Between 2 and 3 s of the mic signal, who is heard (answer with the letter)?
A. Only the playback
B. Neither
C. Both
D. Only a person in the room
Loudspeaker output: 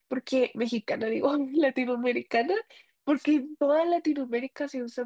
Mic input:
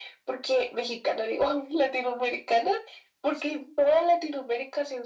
A